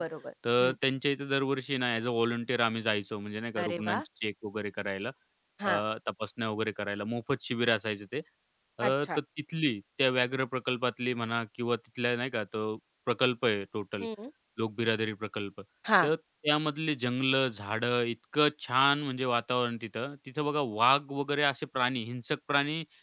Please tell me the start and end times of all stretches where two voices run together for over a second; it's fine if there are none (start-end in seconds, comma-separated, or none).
none